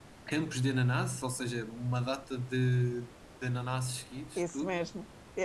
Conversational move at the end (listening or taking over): taking over